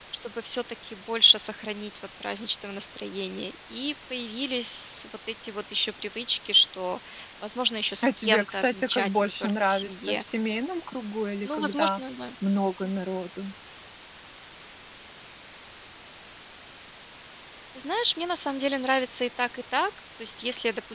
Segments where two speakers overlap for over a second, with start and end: 8.0-10.2

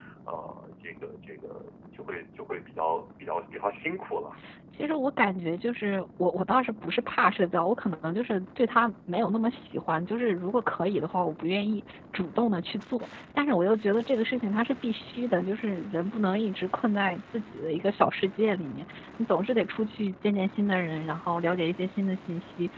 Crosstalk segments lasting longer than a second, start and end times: none

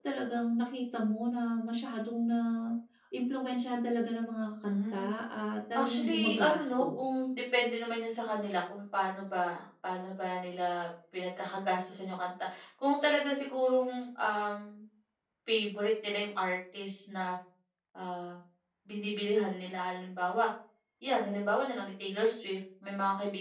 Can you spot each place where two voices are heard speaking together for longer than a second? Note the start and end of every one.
5.8-7.2

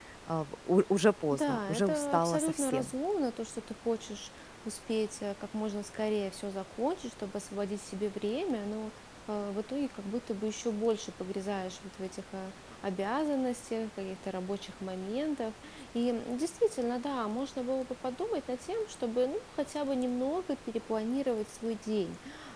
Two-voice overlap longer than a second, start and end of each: 1.3-2.9

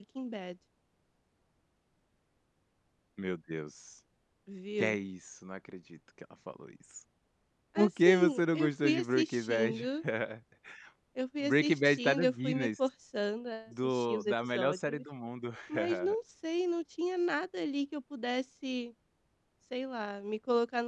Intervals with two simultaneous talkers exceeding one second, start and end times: 7.8-9.9, 11.4-12.7, 13.7-15.0

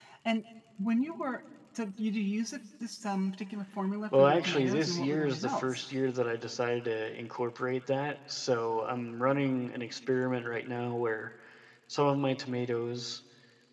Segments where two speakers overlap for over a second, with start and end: 4.1-5.8

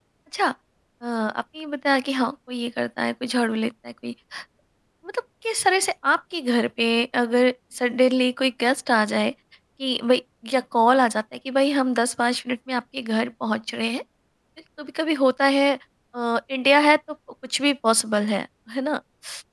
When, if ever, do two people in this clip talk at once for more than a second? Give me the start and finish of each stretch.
none

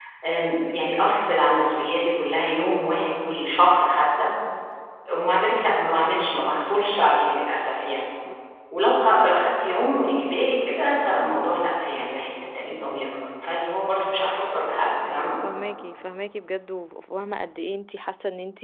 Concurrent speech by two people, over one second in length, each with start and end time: none

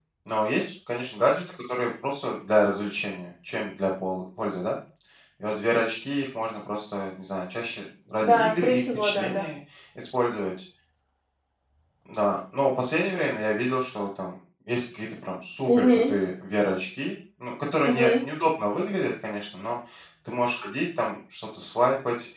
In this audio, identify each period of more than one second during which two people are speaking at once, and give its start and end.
8.2-9.5

